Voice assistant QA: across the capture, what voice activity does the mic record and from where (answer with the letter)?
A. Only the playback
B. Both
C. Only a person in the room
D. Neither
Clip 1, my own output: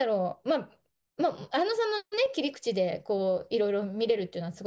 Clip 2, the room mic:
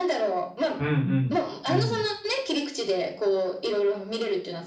B